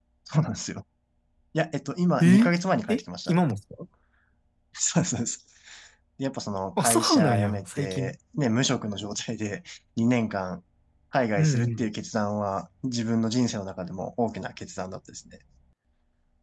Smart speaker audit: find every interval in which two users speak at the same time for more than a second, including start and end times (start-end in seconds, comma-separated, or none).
6.8-8.2